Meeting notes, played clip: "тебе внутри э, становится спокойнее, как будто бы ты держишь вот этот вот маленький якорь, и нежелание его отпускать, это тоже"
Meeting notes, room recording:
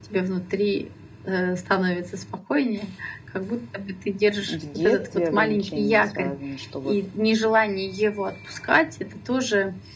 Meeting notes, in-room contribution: present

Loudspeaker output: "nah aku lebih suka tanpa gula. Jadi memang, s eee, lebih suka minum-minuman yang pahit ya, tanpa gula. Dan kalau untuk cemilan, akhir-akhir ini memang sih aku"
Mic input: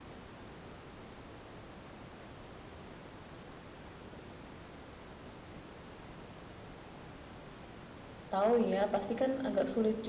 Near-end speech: present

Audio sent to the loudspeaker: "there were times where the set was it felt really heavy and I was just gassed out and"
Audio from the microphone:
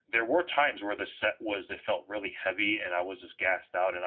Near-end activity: none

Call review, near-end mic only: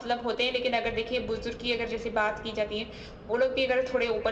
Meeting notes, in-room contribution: none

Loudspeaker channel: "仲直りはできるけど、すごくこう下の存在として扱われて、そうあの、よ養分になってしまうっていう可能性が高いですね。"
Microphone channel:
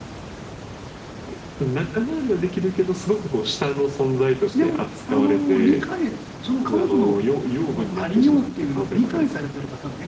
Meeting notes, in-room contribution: present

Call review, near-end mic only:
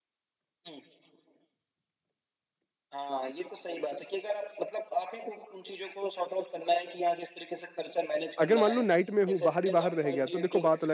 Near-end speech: present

